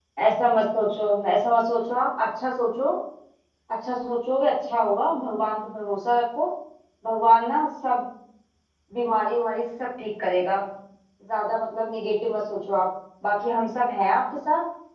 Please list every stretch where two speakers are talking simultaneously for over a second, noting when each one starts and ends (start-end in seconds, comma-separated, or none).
none